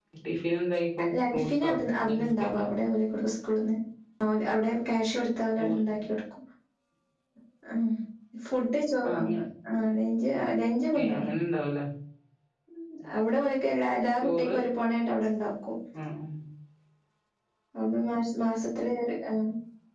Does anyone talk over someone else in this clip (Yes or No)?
Yes